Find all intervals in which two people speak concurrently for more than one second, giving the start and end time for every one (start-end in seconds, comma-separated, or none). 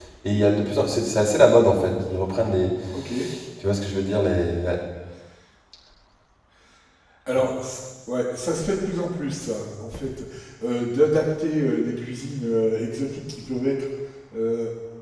none